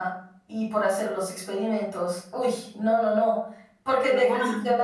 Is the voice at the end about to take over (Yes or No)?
No